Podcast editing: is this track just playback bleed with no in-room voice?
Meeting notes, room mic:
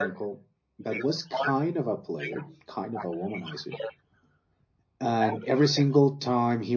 No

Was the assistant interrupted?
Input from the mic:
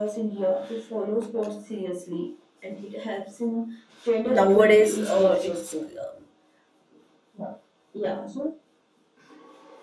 Yes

